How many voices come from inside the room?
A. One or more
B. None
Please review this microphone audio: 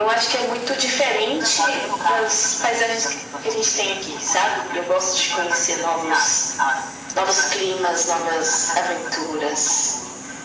B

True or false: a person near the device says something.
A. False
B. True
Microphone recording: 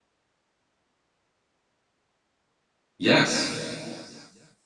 B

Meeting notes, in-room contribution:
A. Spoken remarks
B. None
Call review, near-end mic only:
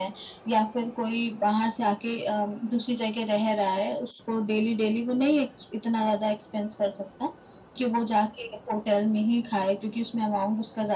B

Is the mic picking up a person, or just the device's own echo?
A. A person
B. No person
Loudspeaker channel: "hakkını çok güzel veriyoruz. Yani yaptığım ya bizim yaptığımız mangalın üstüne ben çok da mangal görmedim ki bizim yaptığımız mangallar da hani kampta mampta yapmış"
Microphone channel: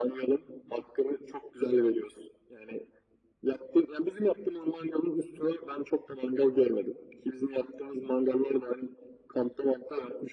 B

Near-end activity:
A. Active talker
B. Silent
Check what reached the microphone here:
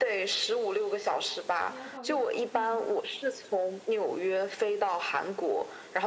A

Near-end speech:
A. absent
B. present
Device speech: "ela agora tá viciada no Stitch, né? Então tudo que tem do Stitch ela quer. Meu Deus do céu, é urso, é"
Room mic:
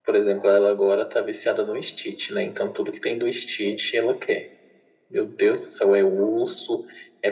A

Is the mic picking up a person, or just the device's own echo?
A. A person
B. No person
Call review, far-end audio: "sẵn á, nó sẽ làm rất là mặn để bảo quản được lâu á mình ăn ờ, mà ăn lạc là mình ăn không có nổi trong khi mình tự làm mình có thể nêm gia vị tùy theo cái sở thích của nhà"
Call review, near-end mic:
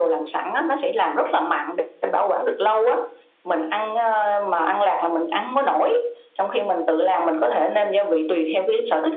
B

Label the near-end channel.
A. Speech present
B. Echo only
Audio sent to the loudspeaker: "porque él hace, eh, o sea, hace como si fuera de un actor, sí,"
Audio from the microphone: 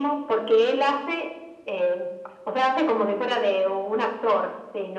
B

